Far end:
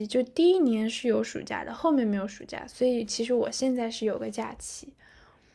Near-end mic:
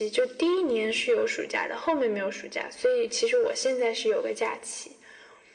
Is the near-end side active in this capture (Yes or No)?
No